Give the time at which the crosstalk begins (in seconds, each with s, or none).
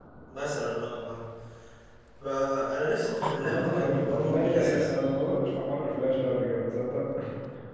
3.4 s